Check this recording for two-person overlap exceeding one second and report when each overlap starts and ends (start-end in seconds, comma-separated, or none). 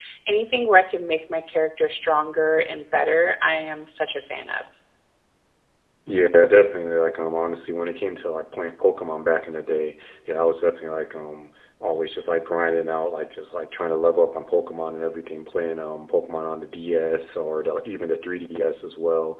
none